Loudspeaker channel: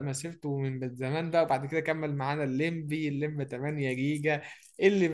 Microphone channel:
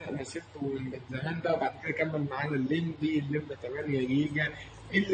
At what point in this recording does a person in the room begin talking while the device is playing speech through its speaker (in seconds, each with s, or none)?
none